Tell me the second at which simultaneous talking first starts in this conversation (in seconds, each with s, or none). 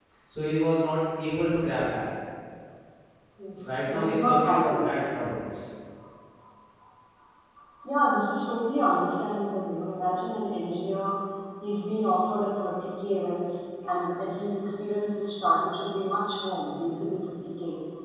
3.6 s